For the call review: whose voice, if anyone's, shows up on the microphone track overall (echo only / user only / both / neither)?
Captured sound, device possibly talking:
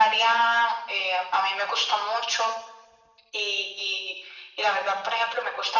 echo only